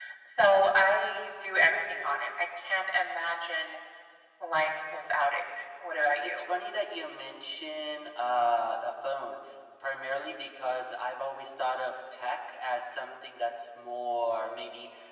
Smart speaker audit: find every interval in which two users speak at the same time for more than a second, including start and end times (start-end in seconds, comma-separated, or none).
none